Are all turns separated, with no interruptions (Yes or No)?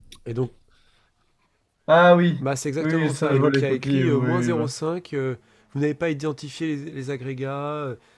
No